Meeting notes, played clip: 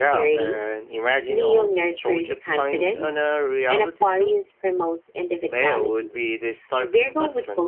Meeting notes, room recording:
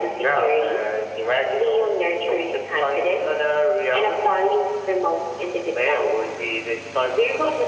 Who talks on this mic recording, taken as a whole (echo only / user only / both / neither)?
echo only